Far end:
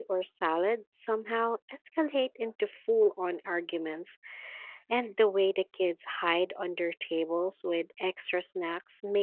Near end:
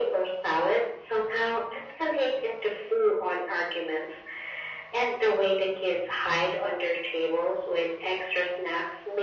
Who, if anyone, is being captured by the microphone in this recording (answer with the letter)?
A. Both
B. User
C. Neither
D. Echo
D